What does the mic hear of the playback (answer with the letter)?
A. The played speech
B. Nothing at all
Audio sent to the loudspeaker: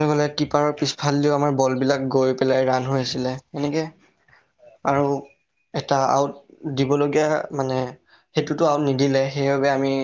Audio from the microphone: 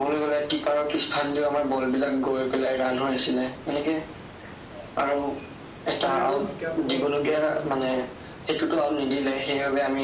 A